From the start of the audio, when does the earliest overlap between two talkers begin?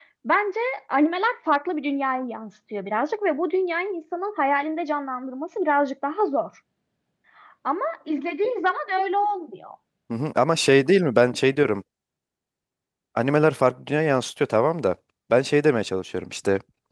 none

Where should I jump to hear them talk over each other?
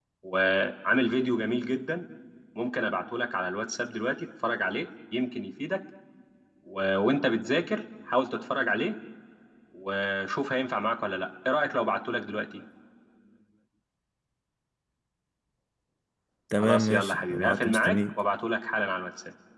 16.6 s

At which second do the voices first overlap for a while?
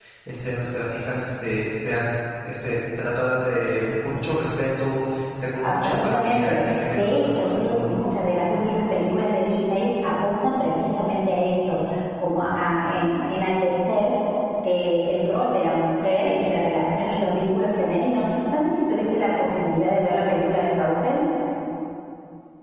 5.6 s

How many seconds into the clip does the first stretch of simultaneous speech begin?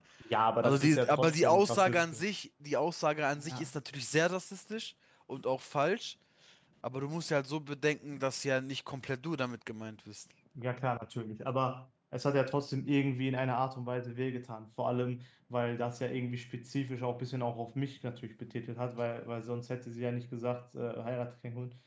0.6 s

